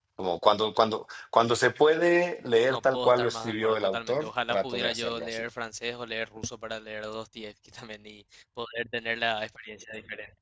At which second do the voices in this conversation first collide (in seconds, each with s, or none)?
2.6 s